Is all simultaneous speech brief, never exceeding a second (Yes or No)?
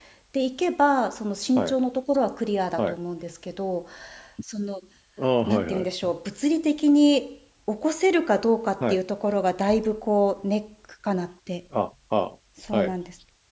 Yes